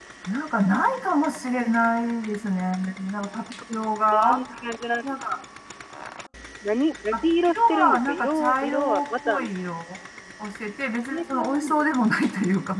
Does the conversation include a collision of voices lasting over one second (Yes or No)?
Yes